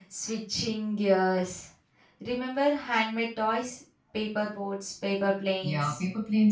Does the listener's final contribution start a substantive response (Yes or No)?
Yes